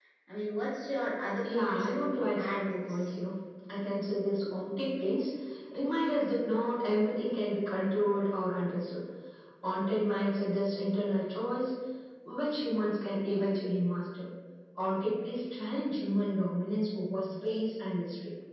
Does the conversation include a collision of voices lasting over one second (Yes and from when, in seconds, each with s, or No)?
Yes, from 1.4 s